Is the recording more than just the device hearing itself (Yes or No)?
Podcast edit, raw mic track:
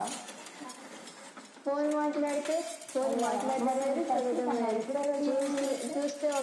No